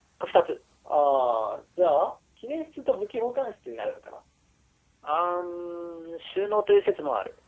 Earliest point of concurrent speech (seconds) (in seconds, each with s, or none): none